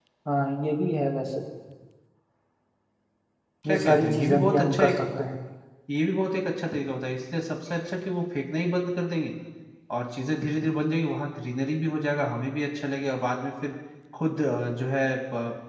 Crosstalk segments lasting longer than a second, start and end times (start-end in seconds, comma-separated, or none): 3.7-5.0